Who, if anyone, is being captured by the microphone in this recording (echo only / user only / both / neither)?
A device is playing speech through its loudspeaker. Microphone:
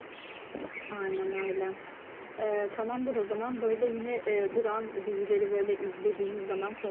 echo only